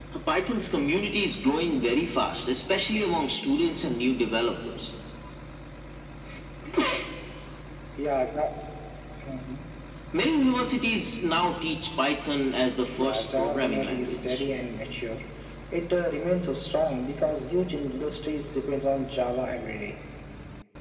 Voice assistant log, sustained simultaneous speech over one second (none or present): present